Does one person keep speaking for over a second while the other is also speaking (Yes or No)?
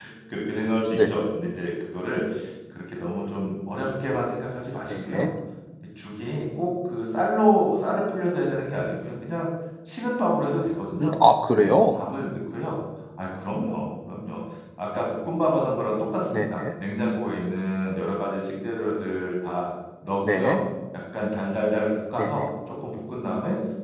No